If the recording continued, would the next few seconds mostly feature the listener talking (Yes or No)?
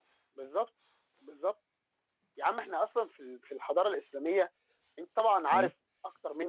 No